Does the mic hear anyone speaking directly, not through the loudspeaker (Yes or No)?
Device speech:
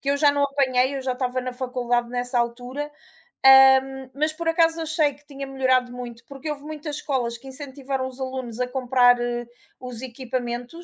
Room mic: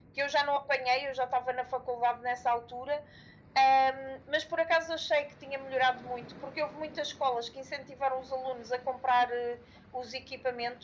No